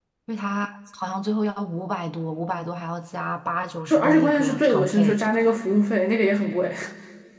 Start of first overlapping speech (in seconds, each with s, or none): 3.9 s